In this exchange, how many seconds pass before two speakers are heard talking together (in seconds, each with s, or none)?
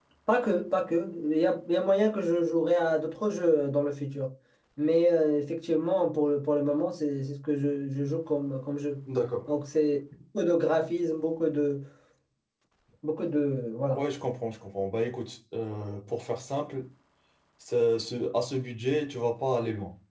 none